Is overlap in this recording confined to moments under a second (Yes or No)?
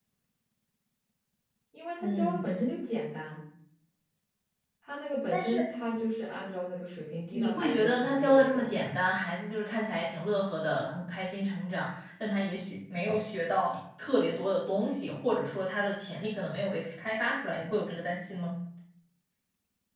No